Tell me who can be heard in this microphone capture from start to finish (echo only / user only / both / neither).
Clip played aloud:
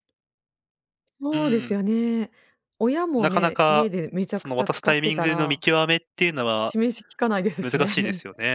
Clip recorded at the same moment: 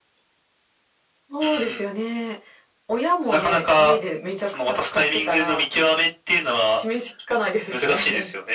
echo only